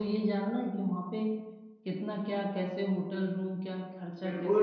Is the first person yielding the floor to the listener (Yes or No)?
Yes